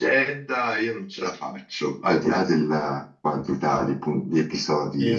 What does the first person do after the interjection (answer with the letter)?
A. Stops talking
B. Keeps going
A